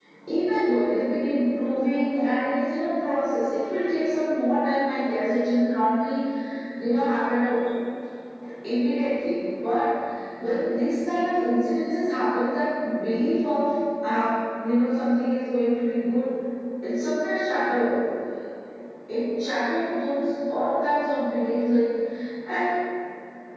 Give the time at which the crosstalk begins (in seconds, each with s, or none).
none